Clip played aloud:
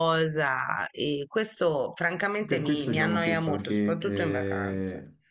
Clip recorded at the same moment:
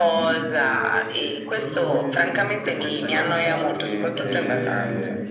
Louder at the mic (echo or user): echo